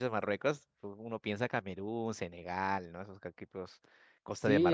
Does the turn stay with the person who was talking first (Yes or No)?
No